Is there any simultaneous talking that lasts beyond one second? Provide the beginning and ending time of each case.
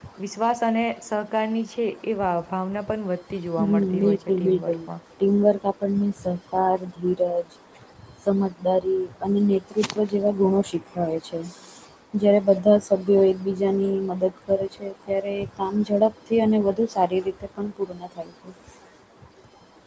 3.6-4.8

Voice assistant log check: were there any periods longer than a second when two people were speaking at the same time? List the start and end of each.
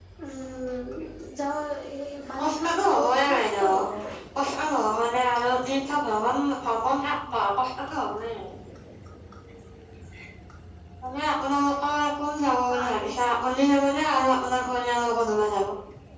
2.4-3.7

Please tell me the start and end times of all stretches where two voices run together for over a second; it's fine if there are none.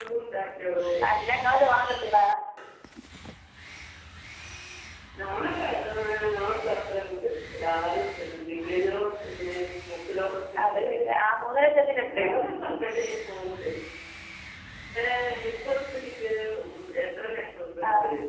none

